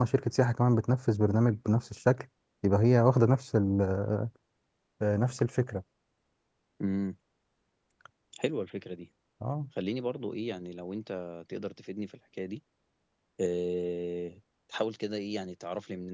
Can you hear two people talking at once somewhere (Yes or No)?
No